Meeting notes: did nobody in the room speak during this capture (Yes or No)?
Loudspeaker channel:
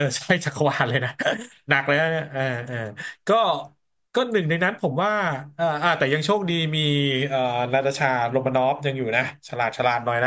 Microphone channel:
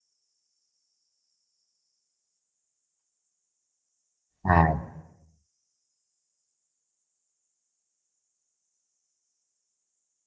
No